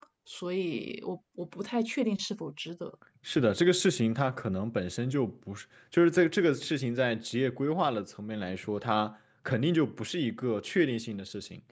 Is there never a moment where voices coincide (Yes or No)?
Yes